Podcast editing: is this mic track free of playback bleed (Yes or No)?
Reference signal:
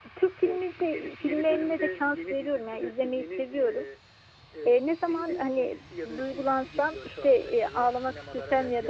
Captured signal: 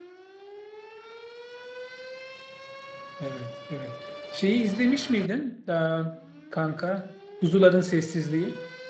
Yes